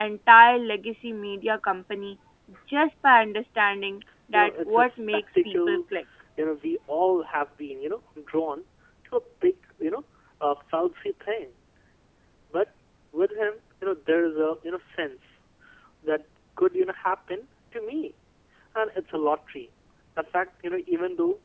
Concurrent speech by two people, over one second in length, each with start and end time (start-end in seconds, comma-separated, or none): 4.3-5.8